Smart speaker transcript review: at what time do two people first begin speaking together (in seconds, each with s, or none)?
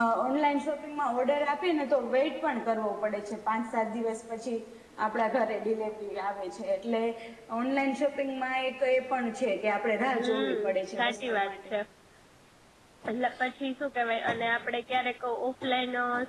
10.1 s